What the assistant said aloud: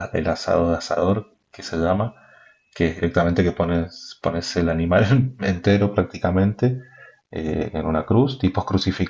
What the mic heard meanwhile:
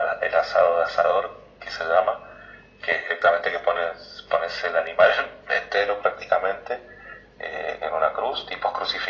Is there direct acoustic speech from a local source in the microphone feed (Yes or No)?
No